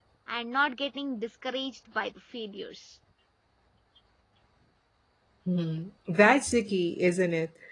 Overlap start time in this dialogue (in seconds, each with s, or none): none